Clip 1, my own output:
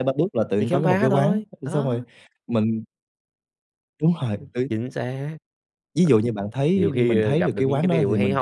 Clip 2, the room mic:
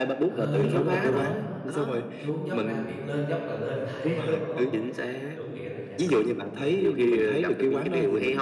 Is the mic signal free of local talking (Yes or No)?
No